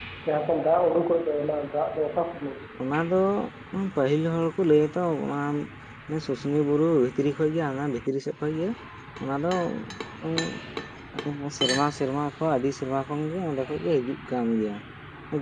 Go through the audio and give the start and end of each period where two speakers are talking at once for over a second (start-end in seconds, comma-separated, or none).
none